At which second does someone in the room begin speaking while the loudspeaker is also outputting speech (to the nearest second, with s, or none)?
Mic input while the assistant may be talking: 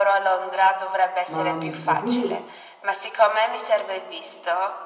1 s